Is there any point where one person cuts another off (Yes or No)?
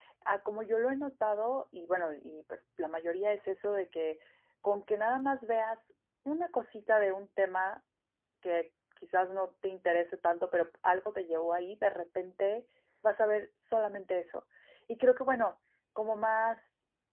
No